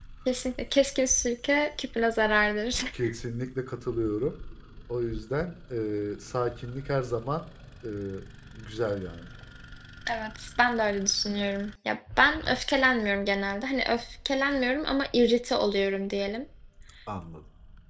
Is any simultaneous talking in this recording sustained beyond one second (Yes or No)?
No